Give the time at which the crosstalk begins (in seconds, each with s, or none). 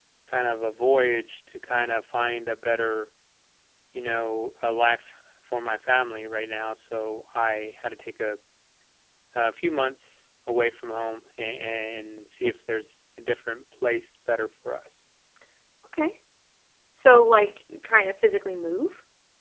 none